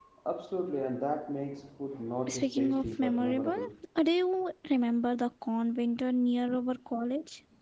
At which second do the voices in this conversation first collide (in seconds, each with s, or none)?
2.3 s